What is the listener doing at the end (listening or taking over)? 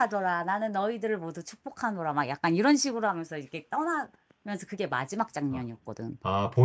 taking over